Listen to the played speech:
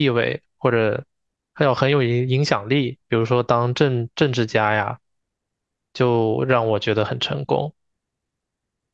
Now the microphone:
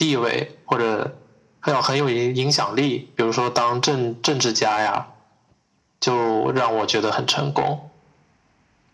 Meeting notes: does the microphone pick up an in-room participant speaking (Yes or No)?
No